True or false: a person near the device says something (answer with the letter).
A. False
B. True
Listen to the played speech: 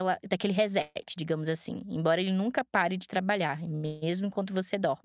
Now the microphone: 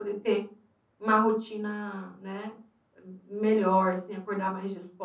B